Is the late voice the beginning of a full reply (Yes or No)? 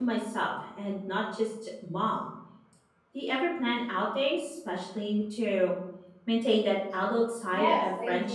Yes